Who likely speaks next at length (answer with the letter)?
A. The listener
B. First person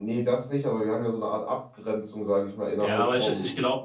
A